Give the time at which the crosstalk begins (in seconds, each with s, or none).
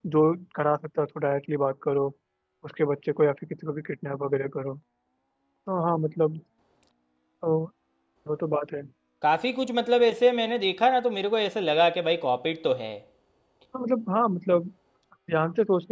none